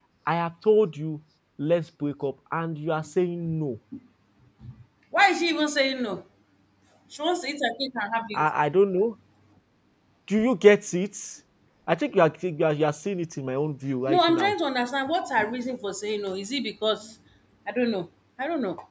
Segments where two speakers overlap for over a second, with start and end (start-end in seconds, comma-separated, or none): none